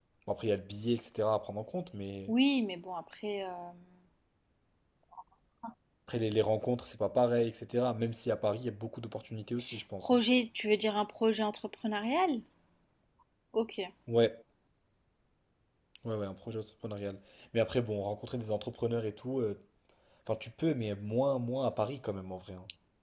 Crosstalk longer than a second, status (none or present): none